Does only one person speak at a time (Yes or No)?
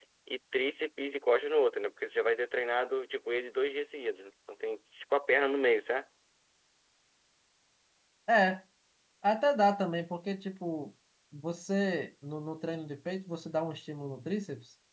Yes